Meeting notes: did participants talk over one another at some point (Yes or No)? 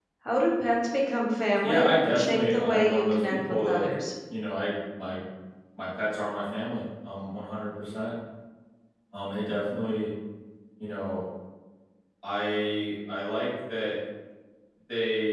Yes